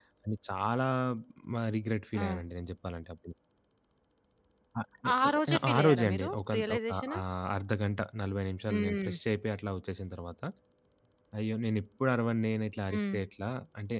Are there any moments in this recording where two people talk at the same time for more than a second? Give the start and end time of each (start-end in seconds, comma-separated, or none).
5.7-7.2